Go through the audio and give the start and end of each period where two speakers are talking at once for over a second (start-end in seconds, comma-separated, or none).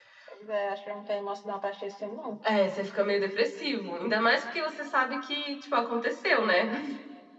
none